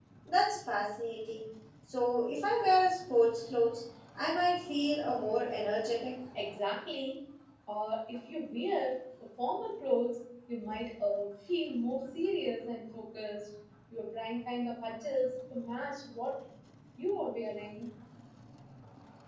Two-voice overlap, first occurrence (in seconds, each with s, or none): none